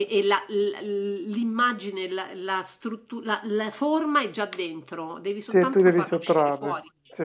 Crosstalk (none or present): present